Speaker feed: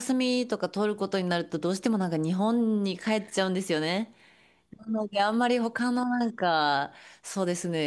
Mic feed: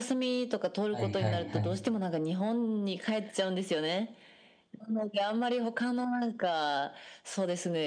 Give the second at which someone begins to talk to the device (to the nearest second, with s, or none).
1 s